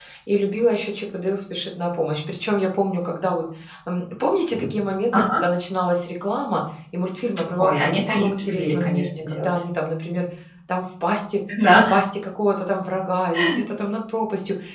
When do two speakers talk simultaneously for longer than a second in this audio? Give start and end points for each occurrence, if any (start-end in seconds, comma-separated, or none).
7.6-9.5